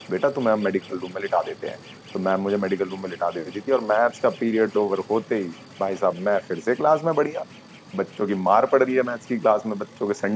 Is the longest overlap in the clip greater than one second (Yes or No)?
No